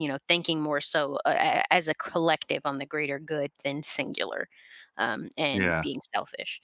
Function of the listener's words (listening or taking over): listening